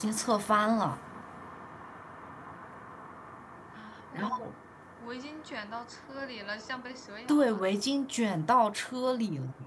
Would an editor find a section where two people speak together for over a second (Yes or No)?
No